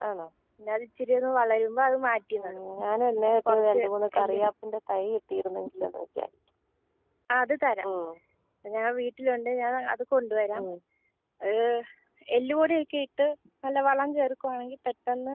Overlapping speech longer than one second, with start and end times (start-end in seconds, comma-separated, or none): none